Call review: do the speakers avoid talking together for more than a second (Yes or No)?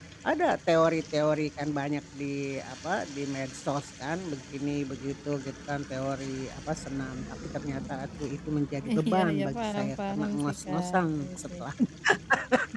No